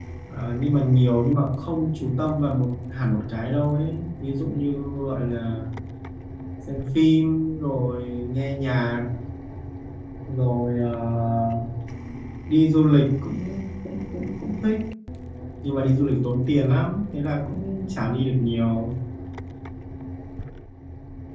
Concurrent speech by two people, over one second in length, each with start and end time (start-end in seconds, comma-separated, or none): none